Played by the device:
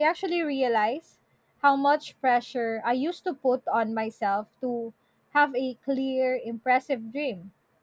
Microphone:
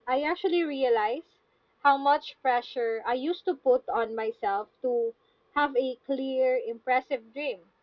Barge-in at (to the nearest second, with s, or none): none